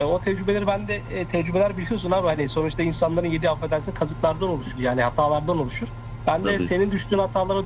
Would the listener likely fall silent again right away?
Yes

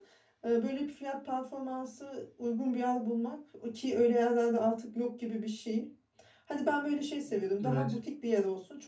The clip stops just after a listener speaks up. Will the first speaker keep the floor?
Yes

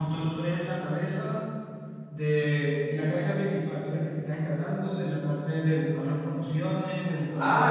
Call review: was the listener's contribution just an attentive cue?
No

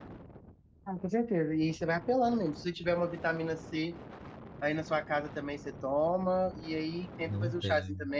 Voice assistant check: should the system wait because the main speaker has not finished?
Yes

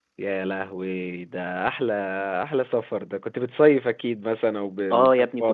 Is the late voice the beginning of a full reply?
Yes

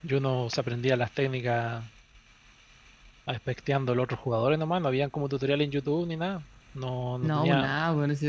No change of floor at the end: No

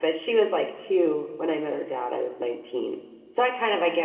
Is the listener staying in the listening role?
Yes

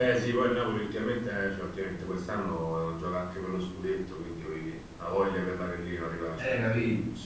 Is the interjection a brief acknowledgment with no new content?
No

